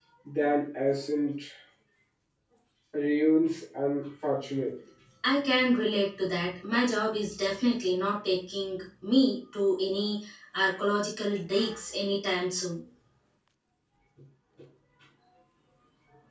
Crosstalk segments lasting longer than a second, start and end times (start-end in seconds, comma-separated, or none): none